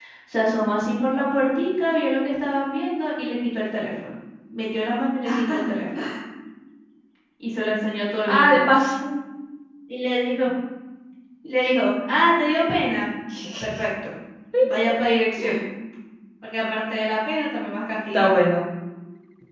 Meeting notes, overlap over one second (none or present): none